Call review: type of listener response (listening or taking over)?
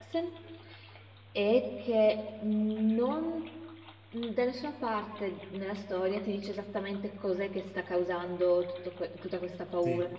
listening